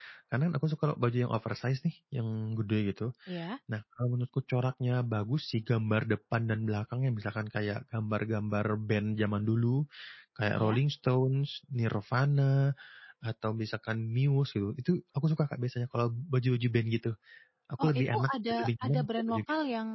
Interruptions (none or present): present